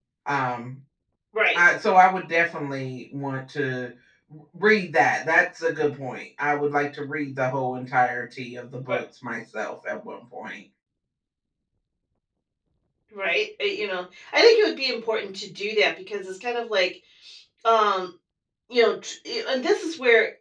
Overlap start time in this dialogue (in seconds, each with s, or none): none